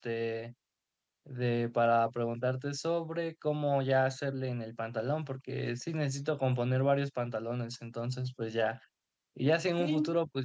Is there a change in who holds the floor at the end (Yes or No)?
No